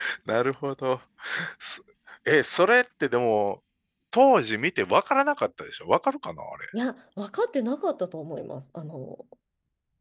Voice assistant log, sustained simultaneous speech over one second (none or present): none